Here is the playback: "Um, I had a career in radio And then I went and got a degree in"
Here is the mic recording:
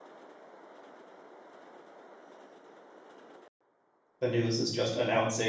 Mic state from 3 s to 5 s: user only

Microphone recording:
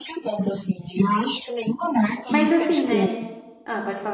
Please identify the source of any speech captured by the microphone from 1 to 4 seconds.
both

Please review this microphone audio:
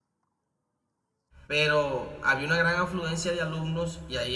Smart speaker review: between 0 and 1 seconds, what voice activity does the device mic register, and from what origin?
neither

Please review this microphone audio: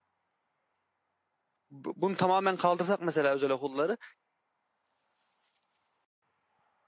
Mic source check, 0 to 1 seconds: neither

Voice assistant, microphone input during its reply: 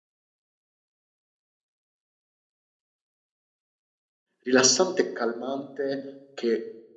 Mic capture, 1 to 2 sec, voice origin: neither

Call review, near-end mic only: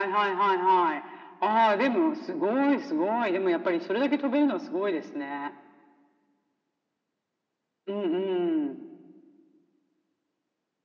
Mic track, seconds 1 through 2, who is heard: echo only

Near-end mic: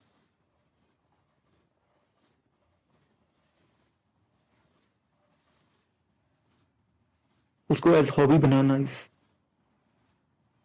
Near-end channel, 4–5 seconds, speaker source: neither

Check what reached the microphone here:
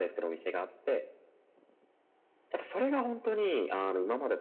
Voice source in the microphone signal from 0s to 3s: echo only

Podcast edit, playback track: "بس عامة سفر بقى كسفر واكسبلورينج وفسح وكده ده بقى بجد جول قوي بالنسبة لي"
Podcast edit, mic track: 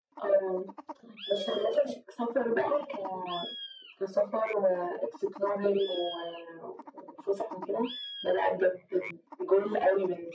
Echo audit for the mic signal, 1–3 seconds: echo only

